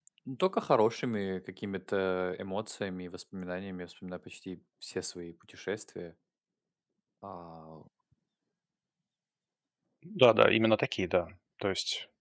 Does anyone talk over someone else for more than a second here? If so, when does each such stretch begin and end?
none

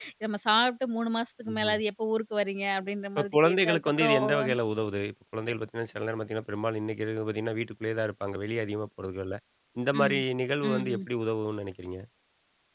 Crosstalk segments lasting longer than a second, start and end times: 3.2-4.6

